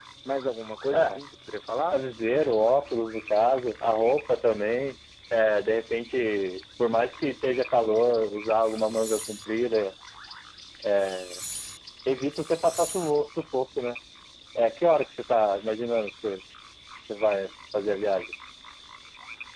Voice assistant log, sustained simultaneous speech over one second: none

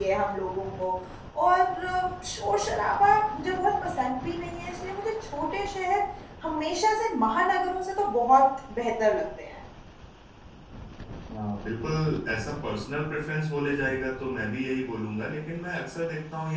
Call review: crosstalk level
none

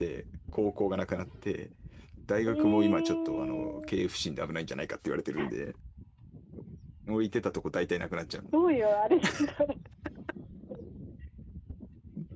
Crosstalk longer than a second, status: present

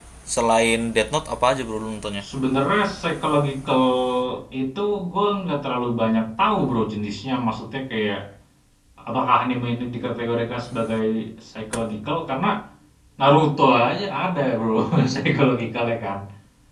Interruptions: none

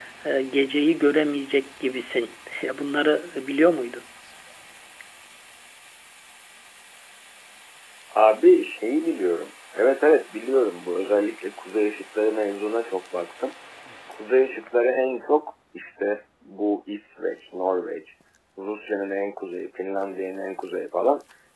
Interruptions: none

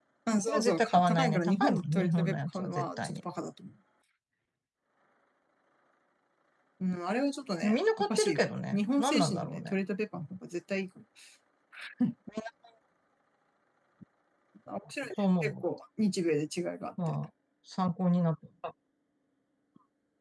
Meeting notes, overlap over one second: present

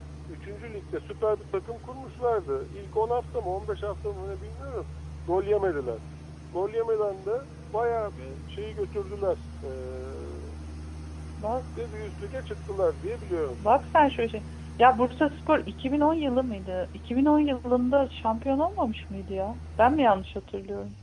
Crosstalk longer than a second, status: none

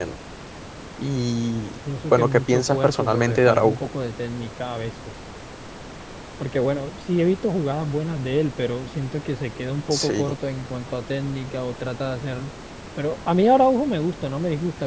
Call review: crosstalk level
present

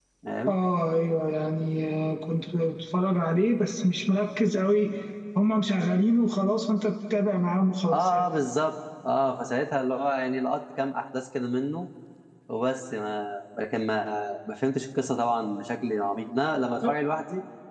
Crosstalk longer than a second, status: none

